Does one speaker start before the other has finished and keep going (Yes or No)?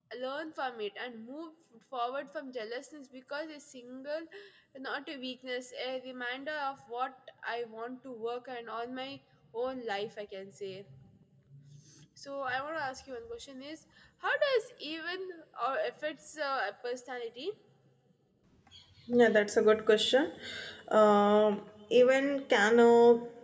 No